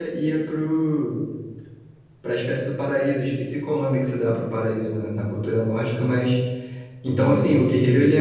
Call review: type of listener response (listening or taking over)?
taking over